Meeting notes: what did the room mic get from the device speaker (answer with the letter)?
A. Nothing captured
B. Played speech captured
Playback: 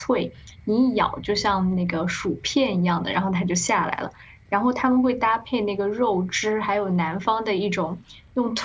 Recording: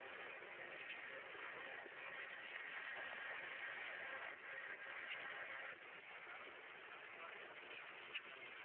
A